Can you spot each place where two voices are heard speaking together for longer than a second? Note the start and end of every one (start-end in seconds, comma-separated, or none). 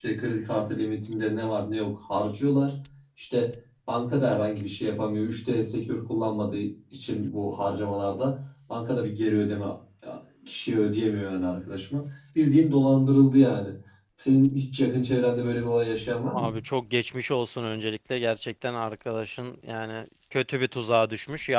none